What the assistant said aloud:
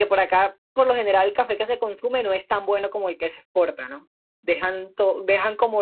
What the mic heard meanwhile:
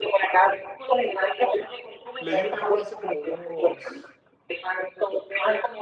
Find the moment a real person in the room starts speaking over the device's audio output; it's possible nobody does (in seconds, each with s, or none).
2.2 s